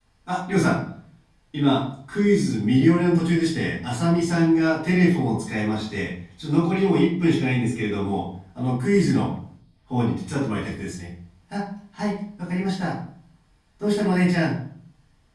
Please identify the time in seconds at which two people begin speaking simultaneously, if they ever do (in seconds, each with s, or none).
none